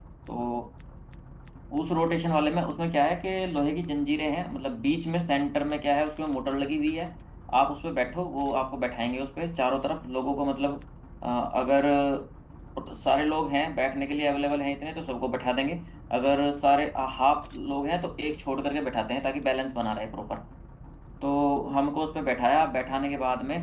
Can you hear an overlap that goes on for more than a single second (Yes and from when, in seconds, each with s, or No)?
No